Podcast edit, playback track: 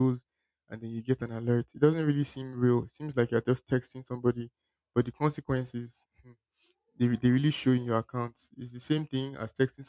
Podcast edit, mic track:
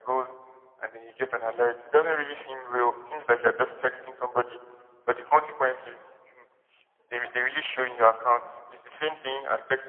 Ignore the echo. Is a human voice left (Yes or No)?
No